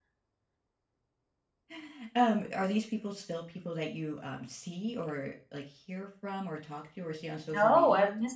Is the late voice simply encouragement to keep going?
No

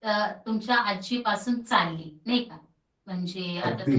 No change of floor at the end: Yes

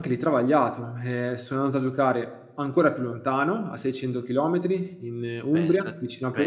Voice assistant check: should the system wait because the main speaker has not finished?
No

